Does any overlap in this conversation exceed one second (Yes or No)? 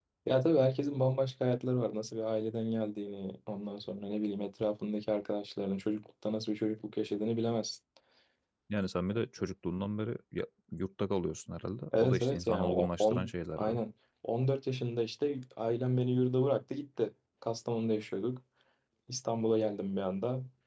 Yes